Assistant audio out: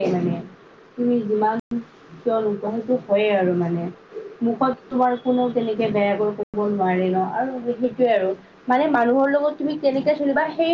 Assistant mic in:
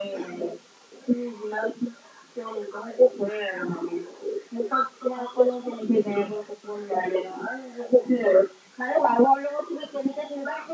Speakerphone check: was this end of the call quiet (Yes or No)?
No